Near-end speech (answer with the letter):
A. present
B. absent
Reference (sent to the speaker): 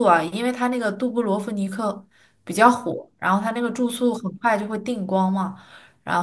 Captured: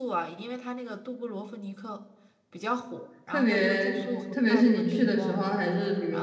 A